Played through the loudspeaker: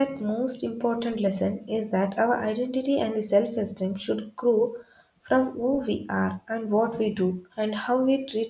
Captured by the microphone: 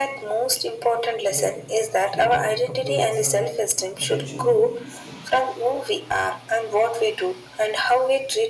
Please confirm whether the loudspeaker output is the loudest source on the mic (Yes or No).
Yes